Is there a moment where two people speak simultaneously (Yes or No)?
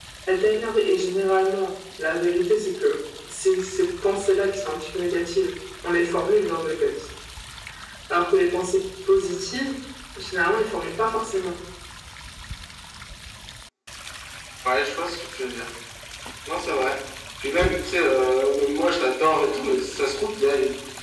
No